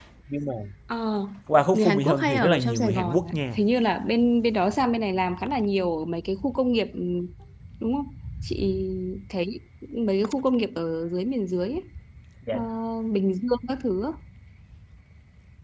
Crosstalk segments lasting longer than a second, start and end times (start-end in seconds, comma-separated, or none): 1.7-3.6